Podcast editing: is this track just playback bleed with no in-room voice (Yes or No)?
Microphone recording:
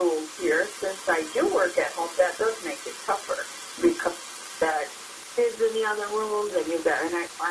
Yes